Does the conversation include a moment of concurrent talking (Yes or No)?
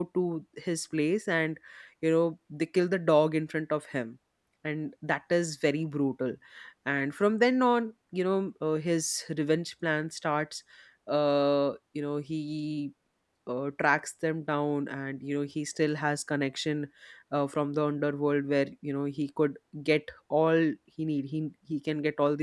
No